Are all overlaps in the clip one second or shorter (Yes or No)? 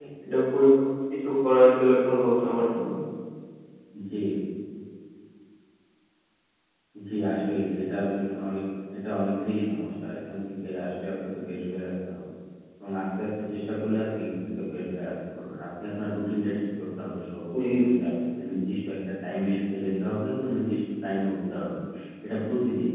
Yes